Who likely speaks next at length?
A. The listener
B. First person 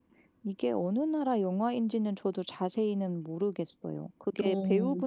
B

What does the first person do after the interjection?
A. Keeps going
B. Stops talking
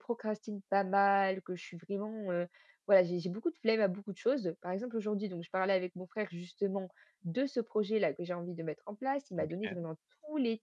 A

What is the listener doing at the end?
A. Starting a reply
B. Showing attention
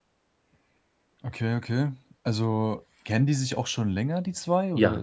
A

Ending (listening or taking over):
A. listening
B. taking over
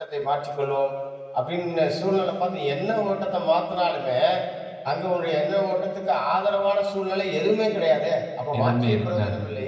A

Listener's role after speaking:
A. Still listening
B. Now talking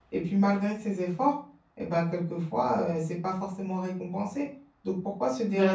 A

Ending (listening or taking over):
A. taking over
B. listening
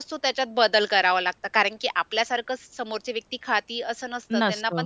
B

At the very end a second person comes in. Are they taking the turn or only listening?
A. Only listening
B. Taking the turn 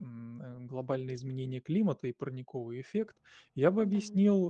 A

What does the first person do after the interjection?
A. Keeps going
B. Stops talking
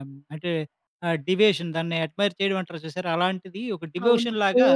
B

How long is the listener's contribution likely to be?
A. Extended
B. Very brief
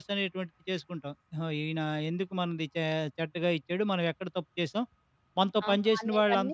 A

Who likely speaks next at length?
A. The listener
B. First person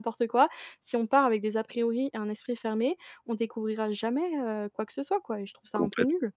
A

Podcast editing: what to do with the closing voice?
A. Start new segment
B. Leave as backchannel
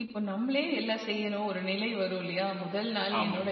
B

